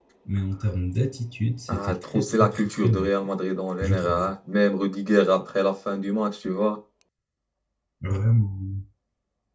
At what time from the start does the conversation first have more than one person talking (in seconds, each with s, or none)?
1.7 s